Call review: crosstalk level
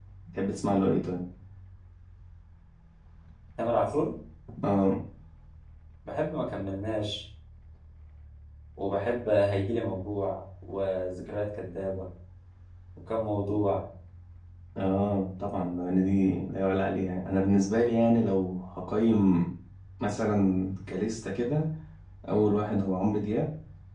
none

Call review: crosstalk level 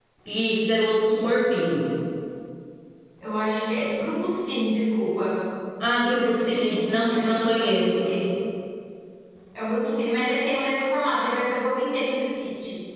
present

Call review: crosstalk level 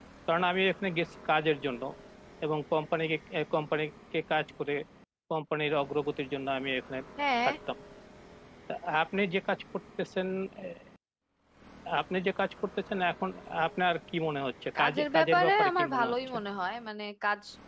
present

